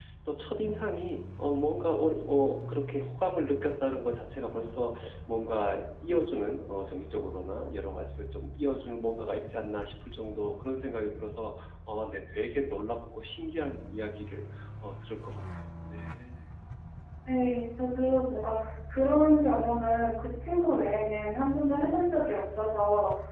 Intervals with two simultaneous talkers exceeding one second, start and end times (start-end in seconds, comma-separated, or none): none